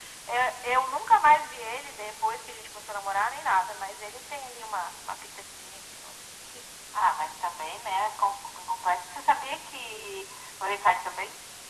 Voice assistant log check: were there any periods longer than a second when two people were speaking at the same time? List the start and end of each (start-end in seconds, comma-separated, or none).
none